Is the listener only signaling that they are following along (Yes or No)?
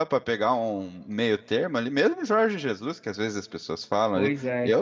Yes